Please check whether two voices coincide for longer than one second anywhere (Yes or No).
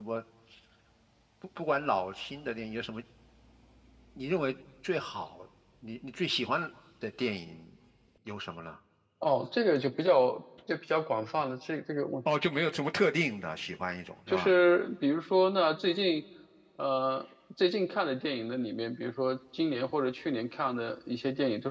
No